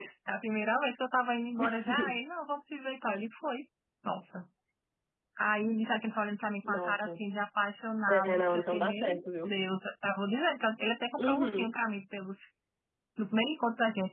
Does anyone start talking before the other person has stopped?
Yes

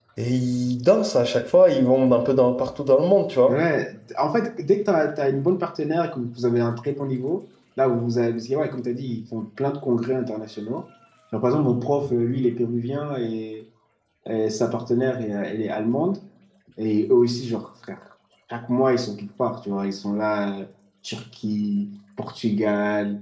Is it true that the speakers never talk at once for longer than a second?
Yes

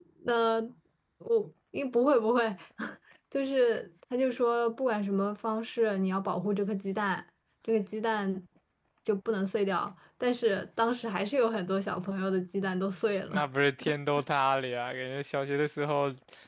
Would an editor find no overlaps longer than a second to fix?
Yes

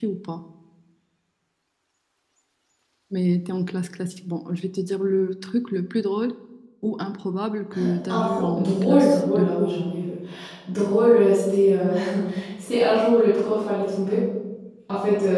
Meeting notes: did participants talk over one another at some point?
Yes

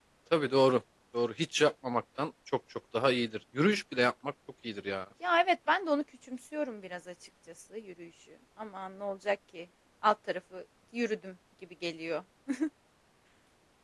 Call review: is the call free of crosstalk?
Yes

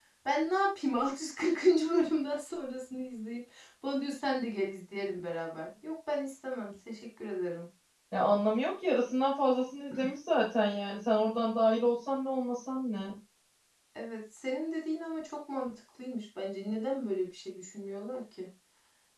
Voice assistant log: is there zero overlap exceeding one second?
Yes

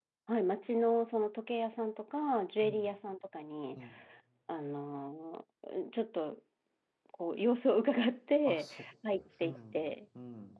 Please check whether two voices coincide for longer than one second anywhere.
Yes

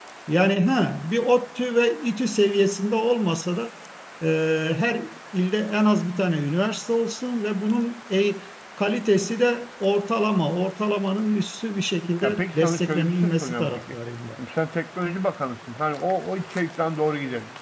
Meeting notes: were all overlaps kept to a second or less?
No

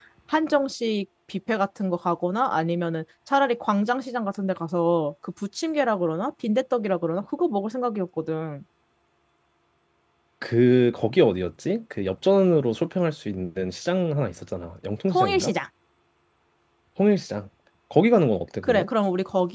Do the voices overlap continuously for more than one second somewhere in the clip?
No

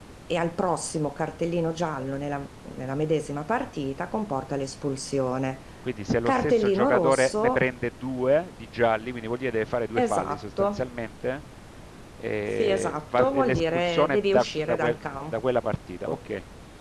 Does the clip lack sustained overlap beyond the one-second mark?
No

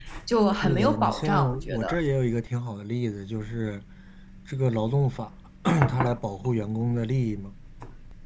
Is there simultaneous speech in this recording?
Yes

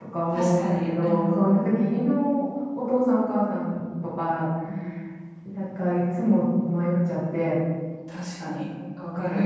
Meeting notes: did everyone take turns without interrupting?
No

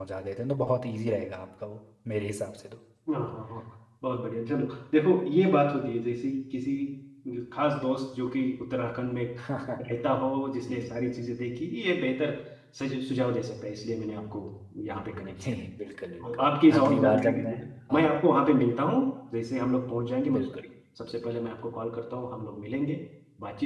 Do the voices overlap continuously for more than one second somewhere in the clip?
Yes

